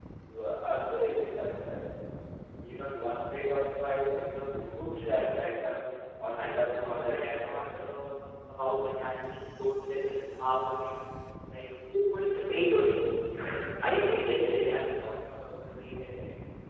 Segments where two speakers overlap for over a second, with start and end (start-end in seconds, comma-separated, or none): 6.4-7.6